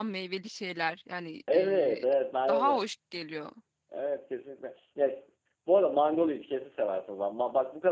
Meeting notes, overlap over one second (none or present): none